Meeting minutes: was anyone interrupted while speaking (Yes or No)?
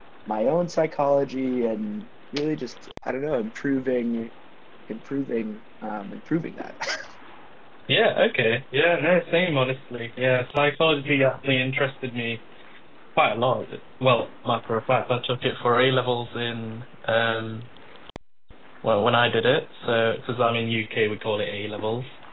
No